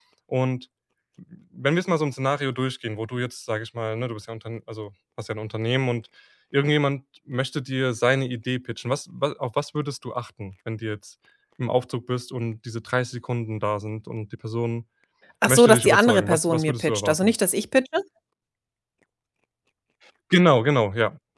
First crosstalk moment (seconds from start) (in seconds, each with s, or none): 15.5 s